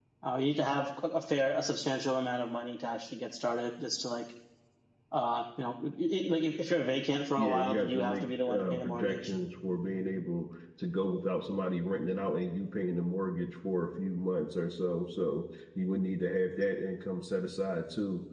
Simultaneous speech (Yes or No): Yes